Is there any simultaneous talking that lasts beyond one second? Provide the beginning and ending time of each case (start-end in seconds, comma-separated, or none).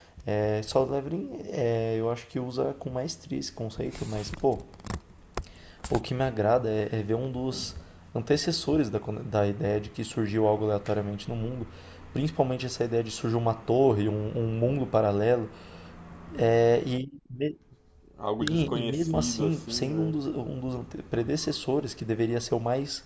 18.5-20.1